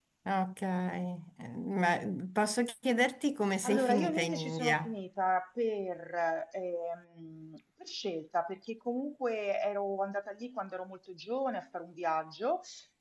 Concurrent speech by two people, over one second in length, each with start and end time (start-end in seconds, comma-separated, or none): 3.6-4.9